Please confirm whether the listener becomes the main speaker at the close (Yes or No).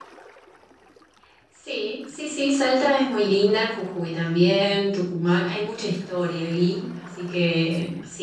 No